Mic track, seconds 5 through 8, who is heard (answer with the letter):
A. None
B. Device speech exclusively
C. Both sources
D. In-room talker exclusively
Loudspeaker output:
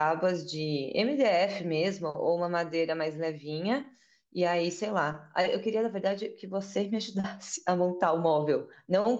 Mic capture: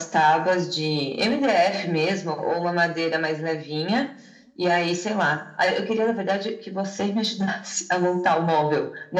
B